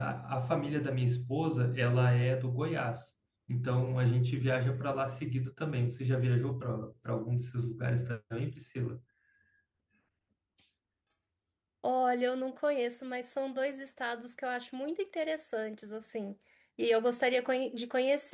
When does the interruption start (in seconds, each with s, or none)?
none